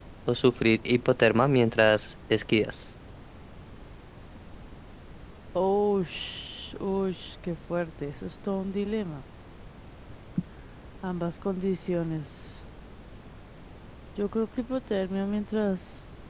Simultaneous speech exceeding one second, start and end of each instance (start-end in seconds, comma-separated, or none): none